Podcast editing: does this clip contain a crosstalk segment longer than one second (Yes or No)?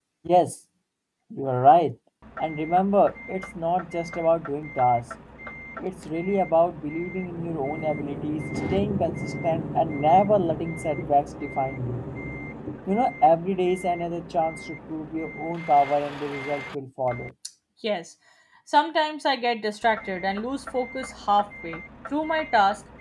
No